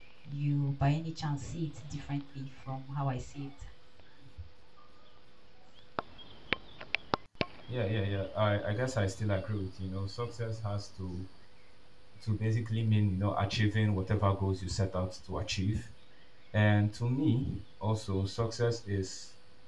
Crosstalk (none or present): none